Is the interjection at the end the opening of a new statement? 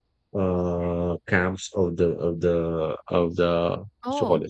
No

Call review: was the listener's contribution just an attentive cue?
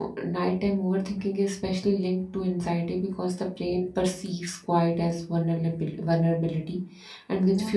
Yes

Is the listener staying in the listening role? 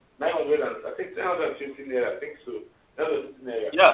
No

